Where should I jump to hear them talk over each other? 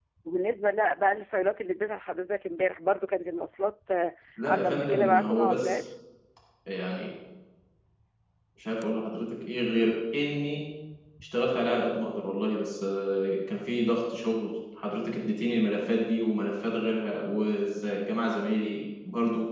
4.4 s

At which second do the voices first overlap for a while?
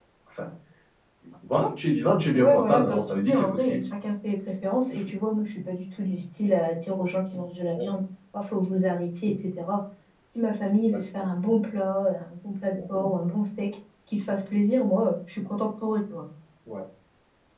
2.3 s

